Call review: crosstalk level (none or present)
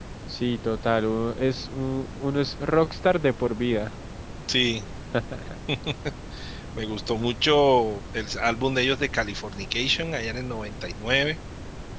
none